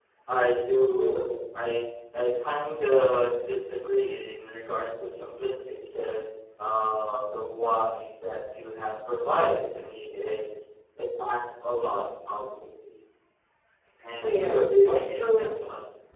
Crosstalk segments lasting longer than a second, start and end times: 14.2-15.5

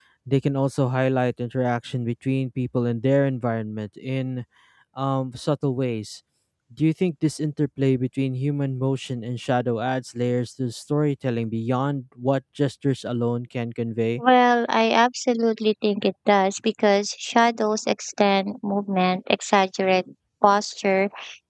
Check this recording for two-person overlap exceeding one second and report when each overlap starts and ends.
none

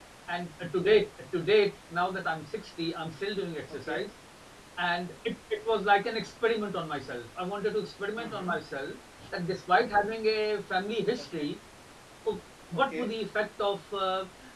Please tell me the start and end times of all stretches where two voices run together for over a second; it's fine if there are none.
none

